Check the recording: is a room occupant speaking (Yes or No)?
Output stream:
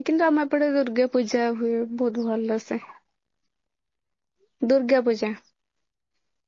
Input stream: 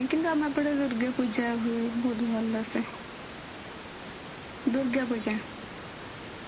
No